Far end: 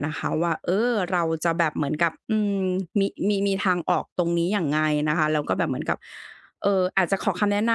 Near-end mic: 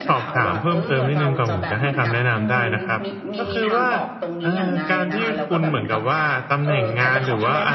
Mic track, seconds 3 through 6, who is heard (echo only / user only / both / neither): both